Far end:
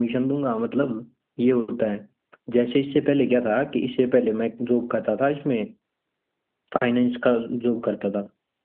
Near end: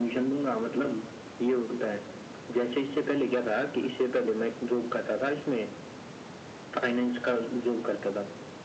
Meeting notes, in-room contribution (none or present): none